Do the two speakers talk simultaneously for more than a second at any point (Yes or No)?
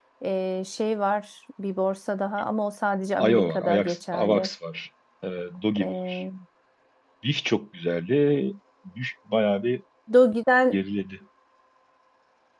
Yes